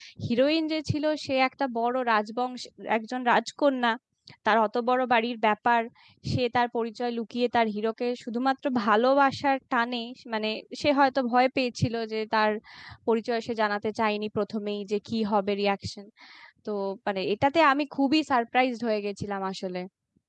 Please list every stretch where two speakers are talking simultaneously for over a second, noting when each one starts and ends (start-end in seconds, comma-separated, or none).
none